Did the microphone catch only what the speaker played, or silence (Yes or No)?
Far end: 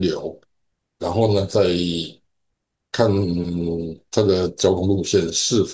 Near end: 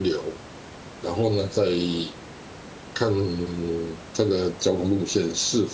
Yes